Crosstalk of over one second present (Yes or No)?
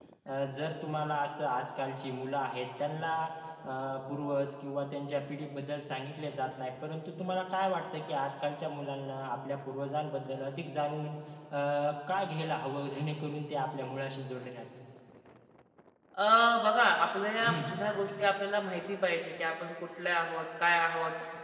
No